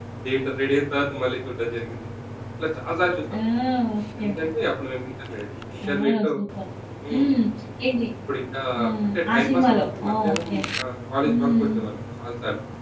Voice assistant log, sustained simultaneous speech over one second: present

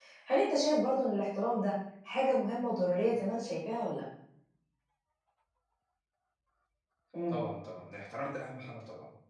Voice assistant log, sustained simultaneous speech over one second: none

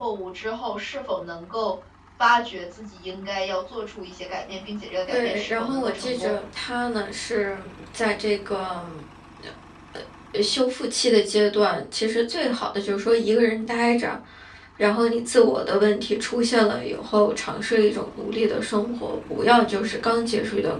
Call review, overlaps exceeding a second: present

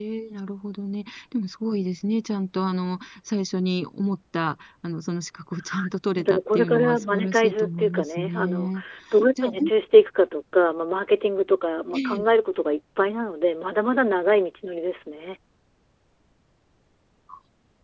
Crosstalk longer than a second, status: present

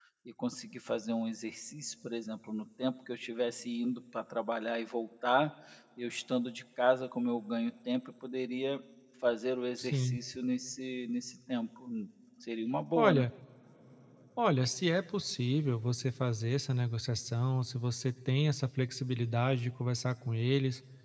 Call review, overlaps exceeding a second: none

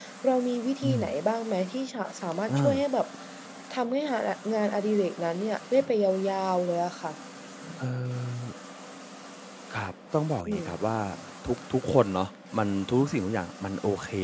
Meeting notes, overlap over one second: none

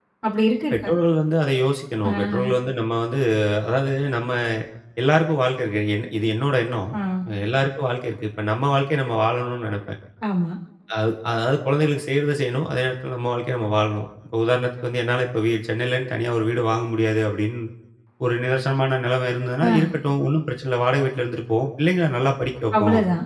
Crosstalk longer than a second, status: none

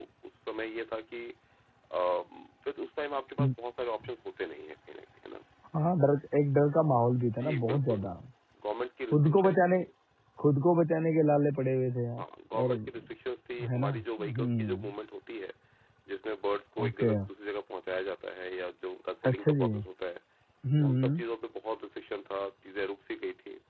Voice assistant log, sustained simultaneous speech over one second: present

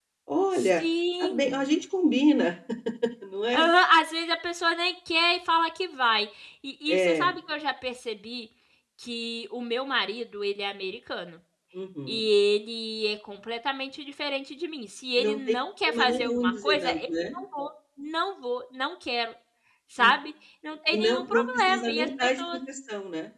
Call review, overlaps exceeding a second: present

